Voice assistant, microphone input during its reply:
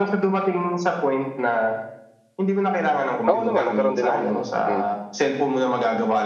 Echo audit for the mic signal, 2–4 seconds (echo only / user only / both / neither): both